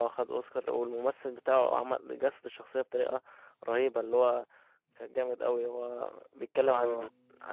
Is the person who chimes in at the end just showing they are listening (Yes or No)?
Yes